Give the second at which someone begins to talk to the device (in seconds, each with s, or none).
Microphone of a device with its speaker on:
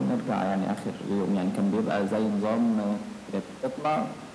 none